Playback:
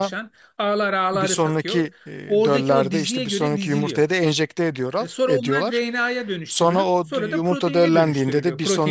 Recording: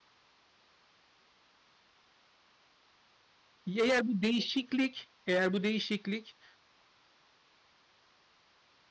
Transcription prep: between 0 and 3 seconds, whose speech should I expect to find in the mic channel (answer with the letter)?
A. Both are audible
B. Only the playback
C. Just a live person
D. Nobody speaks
D